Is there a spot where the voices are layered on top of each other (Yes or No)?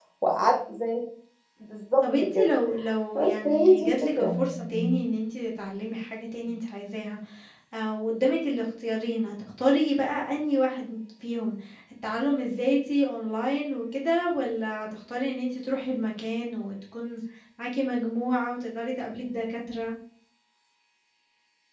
Yes